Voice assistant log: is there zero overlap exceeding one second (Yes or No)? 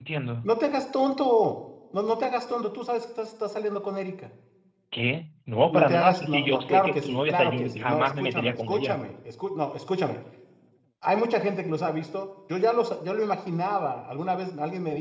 No